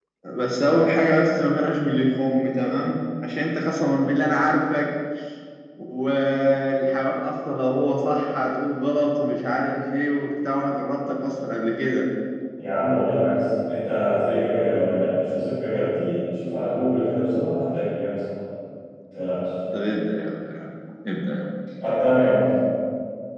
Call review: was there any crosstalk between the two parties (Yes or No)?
No